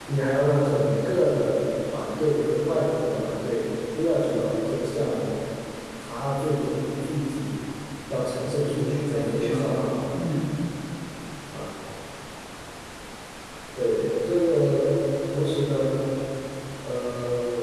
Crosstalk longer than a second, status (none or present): present